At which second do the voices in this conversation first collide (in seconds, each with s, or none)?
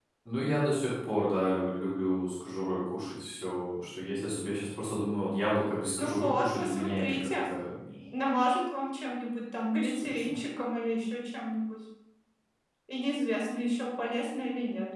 5.9 s